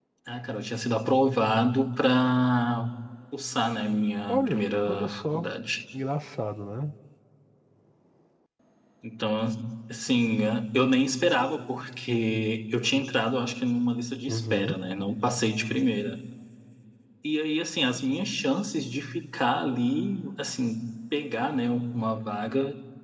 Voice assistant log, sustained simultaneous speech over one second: present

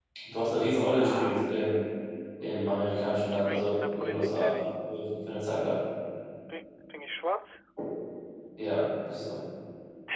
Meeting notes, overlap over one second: present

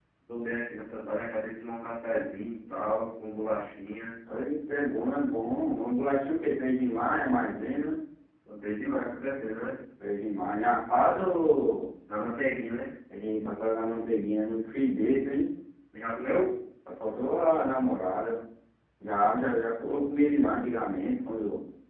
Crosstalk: none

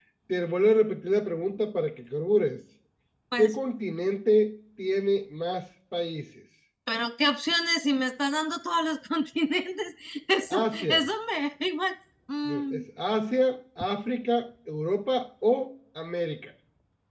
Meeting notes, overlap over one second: none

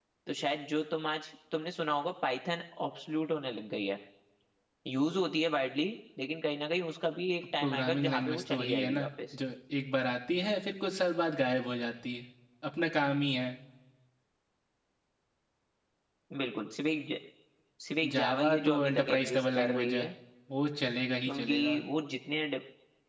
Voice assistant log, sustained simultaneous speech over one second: present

